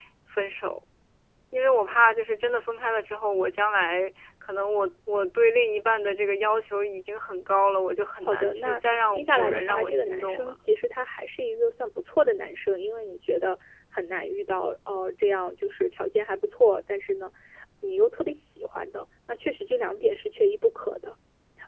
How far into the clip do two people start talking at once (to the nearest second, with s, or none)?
8 s